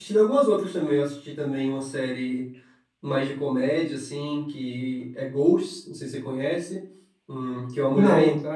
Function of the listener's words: listening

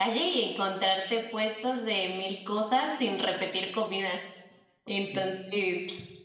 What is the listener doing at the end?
listening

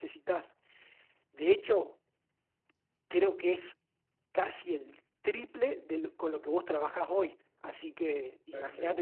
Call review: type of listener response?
taking over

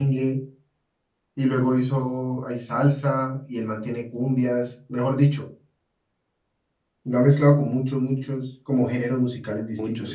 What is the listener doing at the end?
taking over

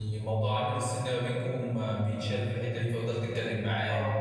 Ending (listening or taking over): listening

